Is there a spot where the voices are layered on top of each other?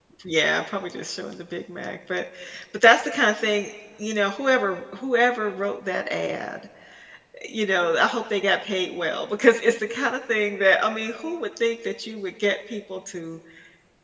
No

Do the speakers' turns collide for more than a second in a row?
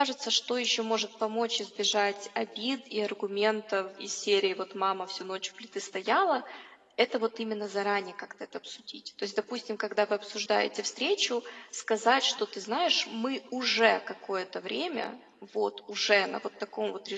No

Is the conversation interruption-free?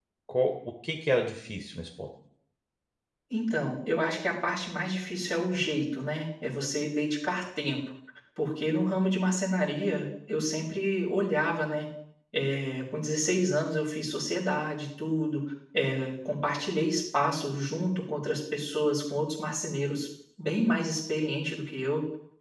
Yes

